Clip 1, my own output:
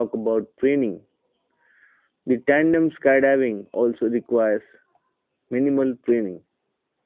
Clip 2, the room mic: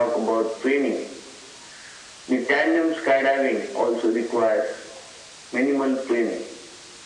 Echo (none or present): present